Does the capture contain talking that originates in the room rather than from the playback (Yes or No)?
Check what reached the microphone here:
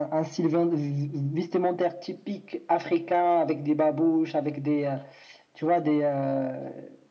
No